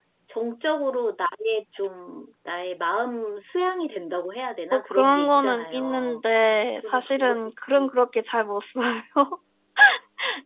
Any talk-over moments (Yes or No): Yes